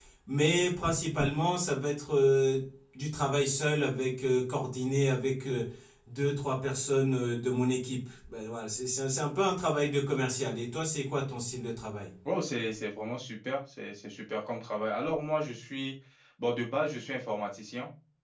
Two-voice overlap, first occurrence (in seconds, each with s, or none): none